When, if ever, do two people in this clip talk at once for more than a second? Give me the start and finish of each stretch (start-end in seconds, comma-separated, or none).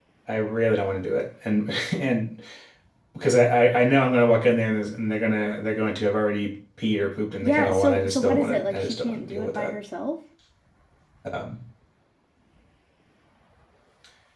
7.4-9.7